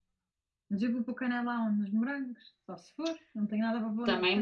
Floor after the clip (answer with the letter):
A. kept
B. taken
B